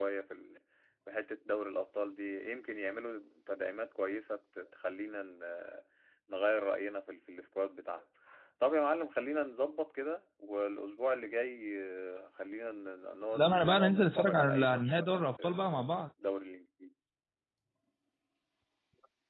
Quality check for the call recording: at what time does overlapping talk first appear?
13 s

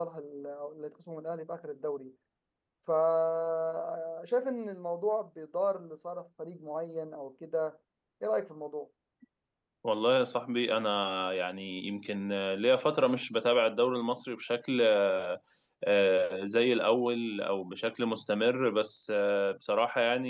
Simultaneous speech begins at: none

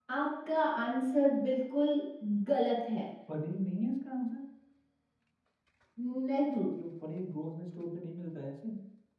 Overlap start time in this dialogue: none

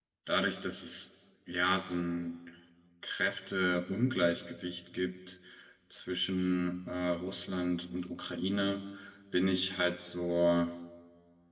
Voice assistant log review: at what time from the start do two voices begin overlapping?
none

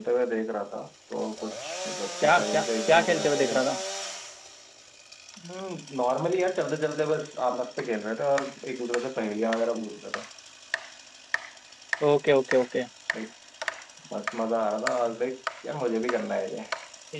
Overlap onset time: 2 s

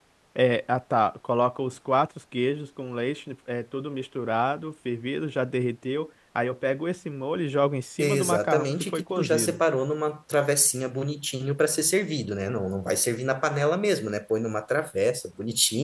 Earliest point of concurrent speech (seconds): 8 s

